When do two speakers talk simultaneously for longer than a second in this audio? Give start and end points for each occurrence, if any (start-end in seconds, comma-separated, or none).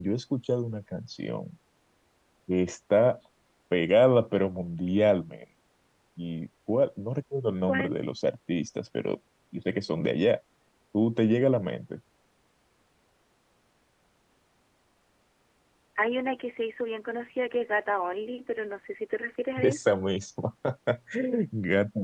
none